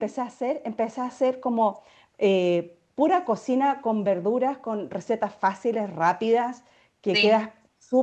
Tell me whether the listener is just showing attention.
Yes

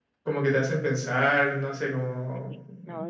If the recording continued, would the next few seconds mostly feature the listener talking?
Yes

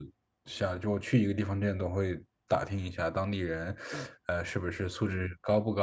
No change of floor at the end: Yes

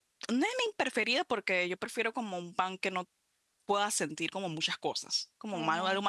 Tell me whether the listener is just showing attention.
Yes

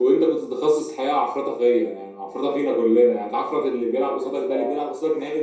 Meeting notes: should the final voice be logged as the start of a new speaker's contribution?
No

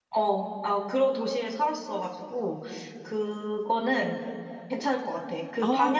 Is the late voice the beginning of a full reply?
No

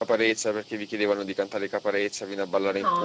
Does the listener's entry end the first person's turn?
Yes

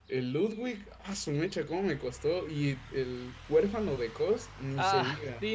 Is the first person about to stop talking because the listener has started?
Yes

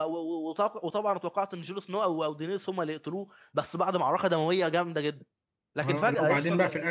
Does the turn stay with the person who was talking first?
No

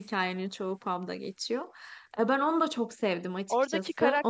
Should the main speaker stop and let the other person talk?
Yes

